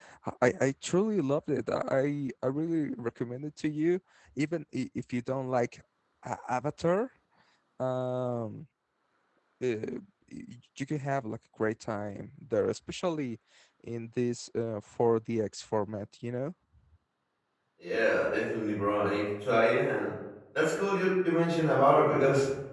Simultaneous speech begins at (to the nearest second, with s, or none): none